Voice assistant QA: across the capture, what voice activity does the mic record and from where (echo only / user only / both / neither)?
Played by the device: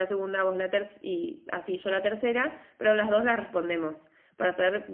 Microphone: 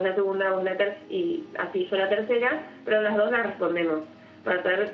echo only